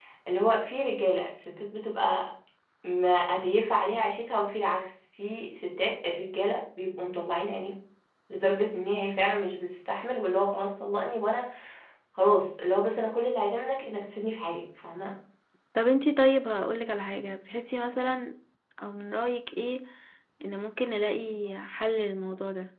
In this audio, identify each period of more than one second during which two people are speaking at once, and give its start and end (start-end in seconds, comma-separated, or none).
none